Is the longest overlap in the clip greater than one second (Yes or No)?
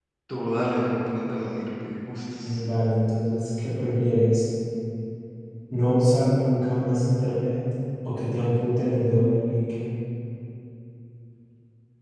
No